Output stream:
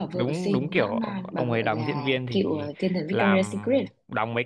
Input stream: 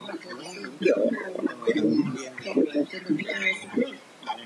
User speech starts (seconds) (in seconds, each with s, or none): none